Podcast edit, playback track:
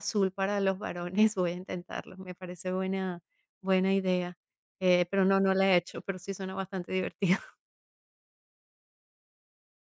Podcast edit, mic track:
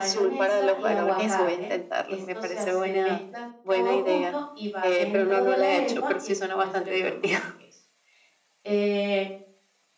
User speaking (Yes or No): Yes